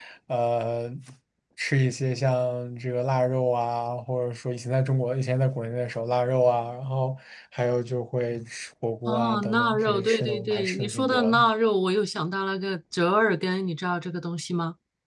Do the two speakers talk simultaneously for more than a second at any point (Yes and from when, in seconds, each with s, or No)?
Yes, from 9.1 s